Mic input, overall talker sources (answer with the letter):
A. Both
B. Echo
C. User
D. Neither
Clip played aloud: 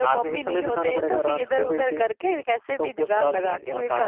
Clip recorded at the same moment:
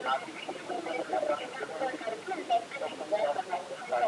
B